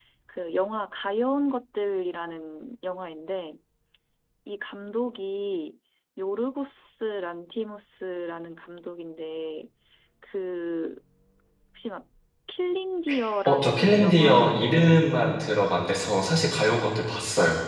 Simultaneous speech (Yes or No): Yes